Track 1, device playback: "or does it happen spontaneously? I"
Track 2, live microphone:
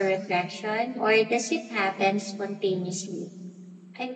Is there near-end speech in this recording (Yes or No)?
No